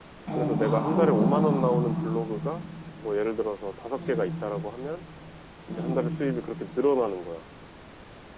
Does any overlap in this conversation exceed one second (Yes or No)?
Yes